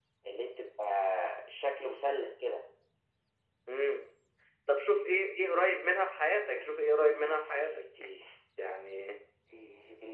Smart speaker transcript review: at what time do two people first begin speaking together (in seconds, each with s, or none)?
6.5 s